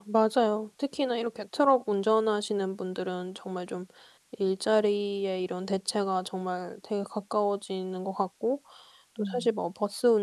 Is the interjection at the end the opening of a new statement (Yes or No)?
No